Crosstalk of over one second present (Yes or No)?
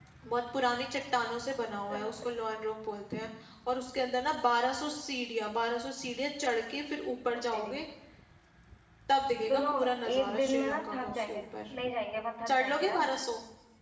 Yes